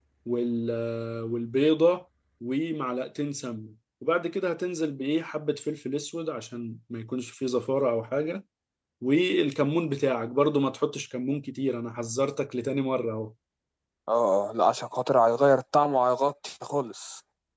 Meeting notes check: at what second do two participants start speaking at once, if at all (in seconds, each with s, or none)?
none